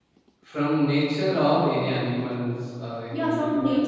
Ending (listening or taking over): taking over